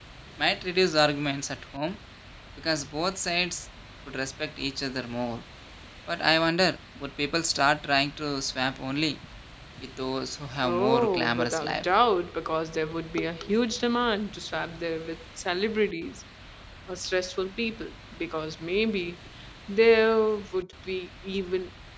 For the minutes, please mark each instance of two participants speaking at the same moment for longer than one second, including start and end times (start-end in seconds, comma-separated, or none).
10.6-11.8